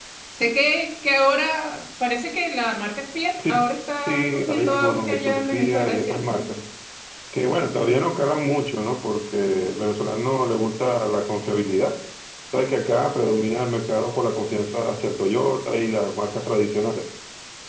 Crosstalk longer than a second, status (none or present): present